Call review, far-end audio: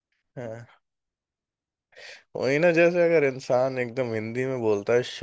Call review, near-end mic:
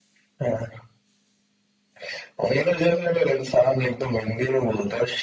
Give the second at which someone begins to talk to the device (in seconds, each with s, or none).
none